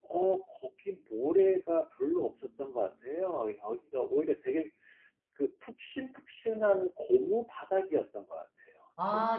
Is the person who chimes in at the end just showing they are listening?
No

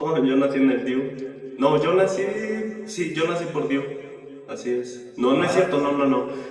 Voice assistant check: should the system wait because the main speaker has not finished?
Yes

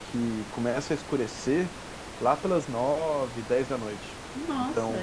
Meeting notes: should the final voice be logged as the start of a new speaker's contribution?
Yes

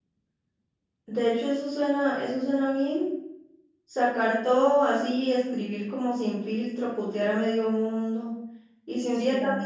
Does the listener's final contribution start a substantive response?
No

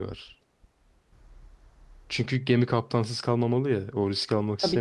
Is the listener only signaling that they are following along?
Yes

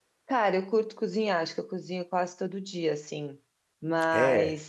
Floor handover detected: No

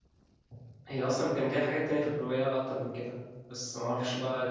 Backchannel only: Yes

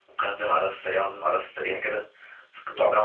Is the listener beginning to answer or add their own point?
No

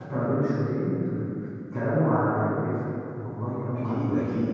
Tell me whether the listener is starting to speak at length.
Yes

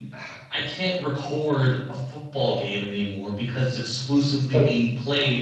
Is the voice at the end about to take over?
No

